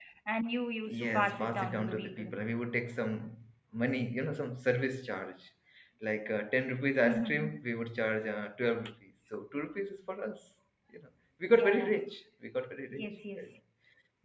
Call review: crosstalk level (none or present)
present